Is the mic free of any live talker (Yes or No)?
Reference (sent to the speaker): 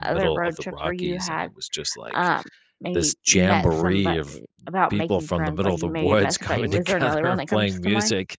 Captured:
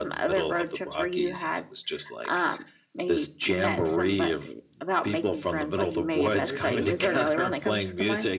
No